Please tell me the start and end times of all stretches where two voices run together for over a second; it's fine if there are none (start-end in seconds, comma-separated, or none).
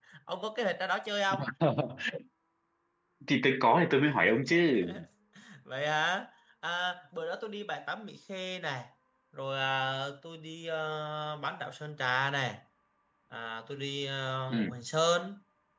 none